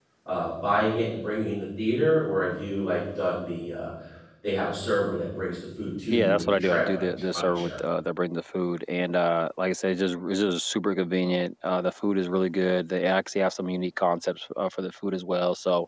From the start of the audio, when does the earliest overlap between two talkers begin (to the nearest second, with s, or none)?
6 s